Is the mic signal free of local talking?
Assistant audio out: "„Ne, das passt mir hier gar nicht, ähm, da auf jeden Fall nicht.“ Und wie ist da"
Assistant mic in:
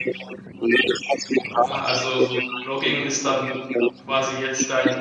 No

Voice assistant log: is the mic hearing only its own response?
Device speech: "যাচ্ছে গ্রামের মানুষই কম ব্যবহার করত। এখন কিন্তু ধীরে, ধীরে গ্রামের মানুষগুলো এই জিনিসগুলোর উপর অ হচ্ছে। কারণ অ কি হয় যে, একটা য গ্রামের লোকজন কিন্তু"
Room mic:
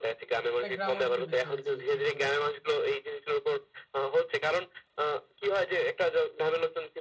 No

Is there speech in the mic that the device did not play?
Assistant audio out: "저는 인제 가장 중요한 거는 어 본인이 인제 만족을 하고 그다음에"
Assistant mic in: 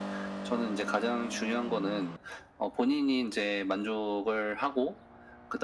No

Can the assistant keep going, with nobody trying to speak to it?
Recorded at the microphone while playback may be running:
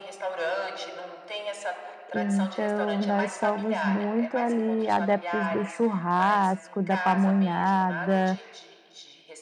No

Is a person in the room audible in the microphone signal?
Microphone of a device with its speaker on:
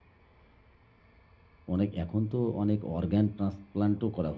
Yes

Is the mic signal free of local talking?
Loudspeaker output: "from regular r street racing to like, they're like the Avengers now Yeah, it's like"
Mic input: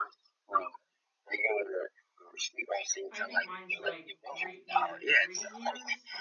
No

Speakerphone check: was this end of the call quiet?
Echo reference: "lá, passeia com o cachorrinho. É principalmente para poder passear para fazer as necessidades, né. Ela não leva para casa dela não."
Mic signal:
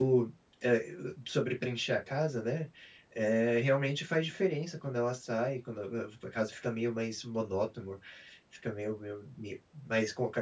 No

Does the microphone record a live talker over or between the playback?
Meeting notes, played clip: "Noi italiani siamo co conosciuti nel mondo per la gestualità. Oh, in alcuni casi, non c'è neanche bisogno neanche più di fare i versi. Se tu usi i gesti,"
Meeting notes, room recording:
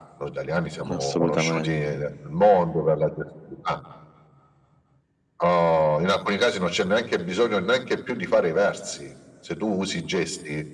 Yes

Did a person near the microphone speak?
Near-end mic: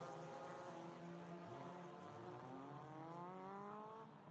No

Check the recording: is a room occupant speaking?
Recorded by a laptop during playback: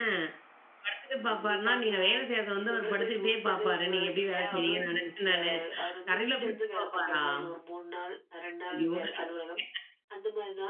Yes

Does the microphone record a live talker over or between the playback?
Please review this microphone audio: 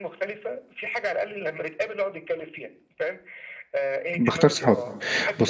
Yes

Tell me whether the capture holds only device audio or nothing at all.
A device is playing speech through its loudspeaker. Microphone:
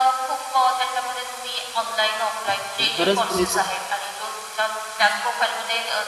No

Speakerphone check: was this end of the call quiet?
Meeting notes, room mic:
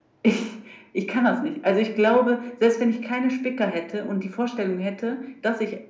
Yes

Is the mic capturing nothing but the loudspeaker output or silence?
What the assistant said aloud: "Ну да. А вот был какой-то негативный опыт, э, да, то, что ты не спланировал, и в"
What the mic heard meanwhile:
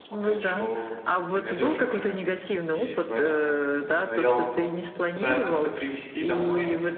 No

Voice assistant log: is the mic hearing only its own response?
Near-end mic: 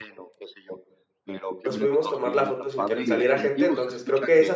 No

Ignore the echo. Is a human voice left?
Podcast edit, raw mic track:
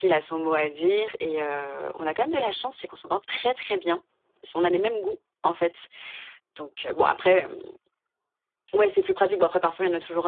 Yes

